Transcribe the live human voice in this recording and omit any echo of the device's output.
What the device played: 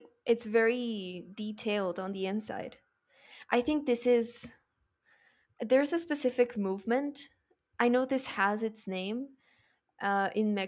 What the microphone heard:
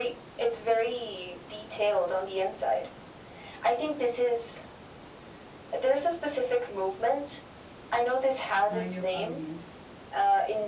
mayo avenue

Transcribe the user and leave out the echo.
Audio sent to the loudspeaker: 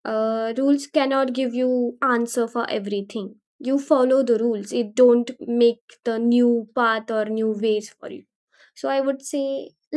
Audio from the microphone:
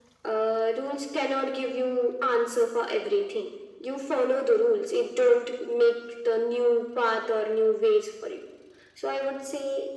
none

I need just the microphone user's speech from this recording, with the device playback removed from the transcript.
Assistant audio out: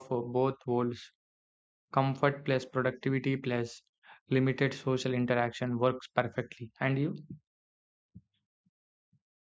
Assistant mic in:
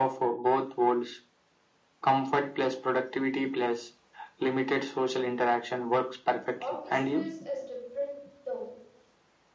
Office stress is different though.

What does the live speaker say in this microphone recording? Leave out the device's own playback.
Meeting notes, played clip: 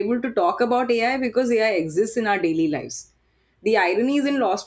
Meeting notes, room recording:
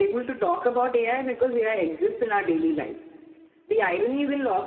none

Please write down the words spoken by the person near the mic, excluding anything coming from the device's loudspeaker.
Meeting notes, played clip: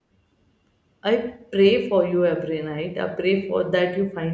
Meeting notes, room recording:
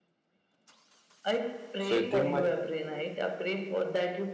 So you think my

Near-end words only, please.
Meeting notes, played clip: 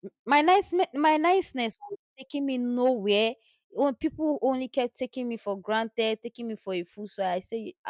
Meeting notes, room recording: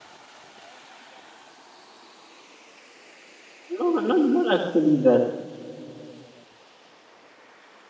no not not actually that.

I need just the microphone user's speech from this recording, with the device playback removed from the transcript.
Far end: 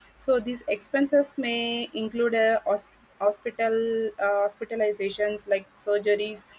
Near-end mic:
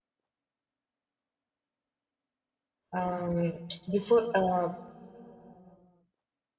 um, before uh,

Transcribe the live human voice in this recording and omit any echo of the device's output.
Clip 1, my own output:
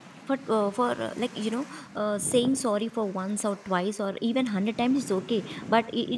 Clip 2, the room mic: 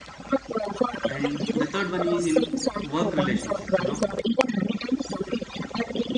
And the third one is in work relationships. You know,

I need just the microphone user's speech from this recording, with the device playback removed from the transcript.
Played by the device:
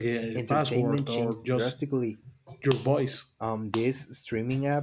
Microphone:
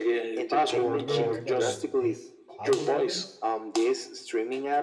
Have you ever heard about these algorithms?

